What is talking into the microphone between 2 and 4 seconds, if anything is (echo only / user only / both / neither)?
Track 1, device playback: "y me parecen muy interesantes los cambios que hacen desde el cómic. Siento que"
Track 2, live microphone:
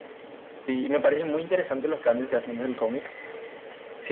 echo only